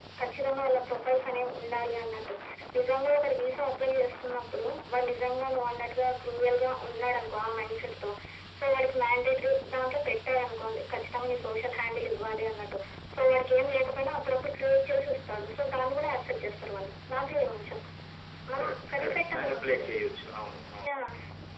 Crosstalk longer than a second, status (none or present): present